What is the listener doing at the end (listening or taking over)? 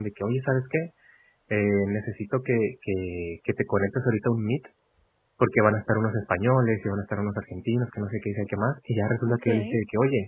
listening